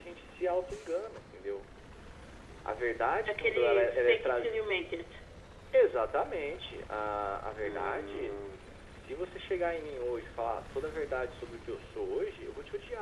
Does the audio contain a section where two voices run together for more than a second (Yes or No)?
Yes